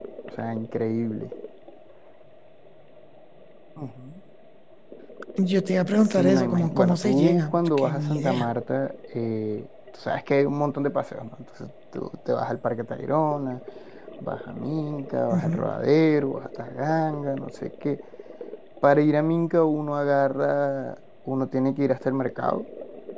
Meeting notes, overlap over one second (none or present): present